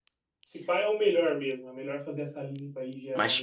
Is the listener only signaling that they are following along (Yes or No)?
No